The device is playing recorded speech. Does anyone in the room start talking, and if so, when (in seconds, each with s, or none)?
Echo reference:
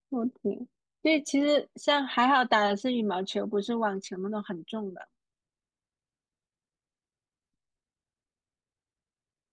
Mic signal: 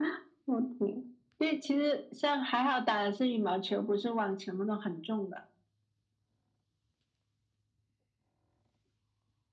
none